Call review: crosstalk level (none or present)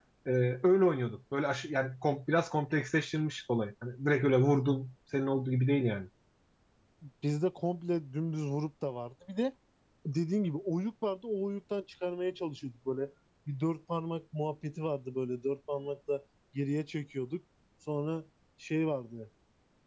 none